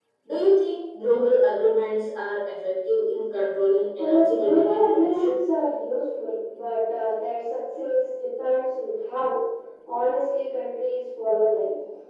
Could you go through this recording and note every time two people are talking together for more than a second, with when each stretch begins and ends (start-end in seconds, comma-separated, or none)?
4.0-5.4